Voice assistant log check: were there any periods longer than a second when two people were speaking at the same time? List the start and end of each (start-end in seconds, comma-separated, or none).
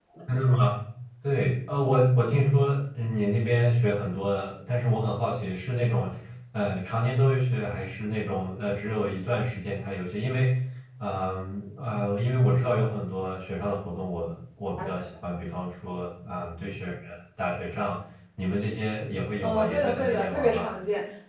19.4-20.7